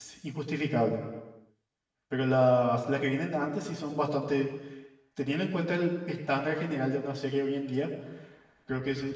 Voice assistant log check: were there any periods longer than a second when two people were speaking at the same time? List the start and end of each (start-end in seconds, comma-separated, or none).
none